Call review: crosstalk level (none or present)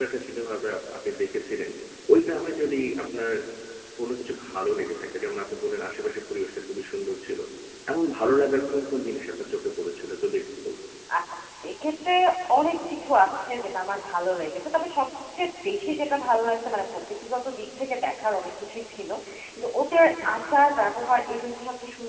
none